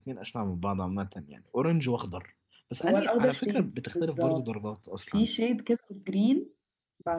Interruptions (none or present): present